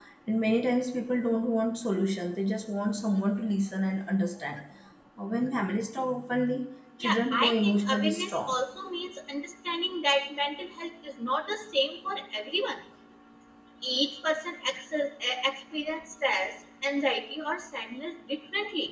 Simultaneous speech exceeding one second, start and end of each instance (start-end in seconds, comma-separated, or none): 7.0-8.5